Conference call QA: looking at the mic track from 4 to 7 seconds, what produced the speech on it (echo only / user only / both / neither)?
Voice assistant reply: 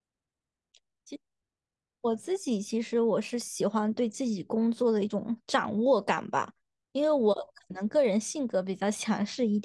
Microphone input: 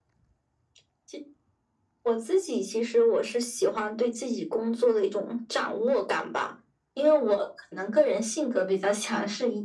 echo only